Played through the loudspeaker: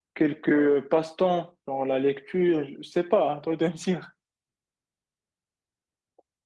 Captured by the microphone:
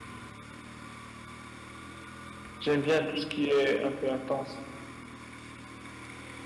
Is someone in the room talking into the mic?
Yes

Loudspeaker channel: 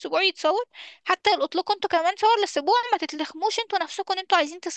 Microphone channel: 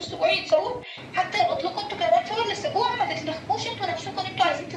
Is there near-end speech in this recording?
No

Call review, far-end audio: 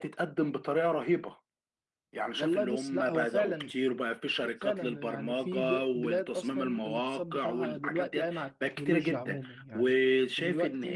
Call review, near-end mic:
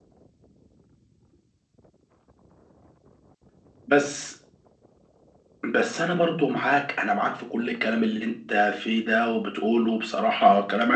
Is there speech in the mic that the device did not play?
Yes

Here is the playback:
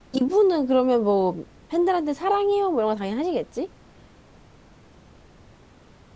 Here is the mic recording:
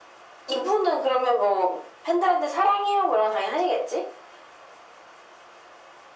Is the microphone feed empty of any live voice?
Yes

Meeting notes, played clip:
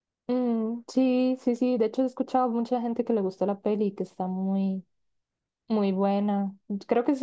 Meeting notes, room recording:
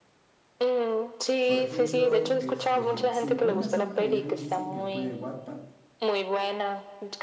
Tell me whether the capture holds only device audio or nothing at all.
No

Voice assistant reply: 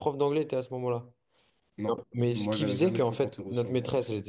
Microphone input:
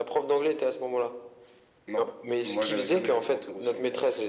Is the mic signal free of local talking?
Yes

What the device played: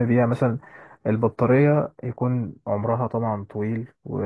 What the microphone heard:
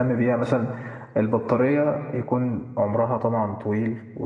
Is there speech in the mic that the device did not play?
No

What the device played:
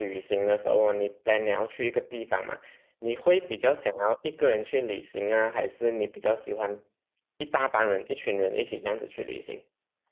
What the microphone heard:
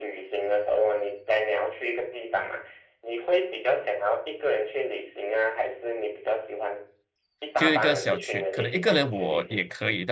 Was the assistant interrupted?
Yes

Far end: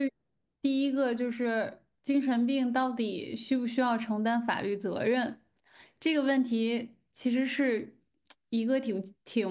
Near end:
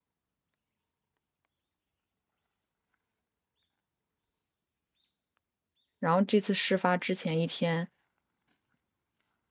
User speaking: Yes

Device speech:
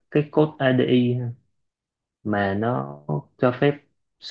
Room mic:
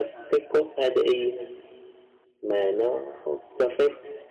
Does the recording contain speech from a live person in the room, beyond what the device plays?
No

